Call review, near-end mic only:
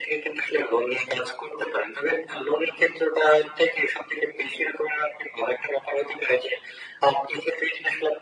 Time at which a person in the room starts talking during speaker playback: none

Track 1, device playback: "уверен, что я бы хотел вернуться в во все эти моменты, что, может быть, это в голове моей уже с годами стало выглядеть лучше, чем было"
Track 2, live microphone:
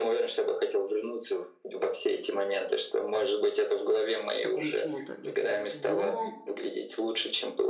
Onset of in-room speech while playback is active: 4.3 s

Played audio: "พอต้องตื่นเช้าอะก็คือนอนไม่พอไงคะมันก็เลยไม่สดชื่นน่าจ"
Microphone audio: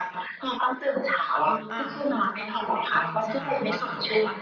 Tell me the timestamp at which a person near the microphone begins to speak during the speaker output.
1.5 s

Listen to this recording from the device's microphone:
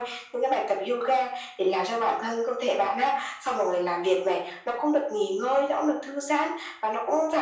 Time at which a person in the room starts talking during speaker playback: none

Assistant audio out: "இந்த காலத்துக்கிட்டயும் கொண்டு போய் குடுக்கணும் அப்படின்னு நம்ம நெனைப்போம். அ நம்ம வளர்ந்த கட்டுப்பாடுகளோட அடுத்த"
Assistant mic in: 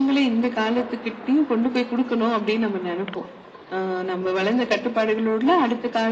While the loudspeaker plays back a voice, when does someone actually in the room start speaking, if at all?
none

